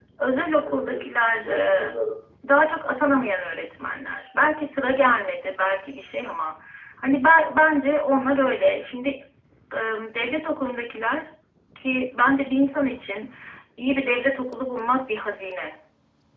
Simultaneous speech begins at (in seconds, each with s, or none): 0.6 s